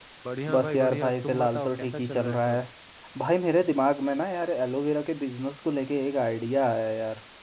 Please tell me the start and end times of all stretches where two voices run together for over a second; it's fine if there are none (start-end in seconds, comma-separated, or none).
0.5-2.6